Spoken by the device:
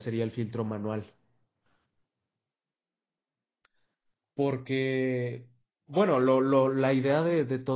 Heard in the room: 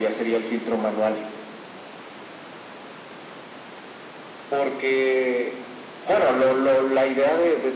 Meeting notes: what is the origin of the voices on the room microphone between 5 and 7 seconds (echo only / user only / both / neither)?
echo only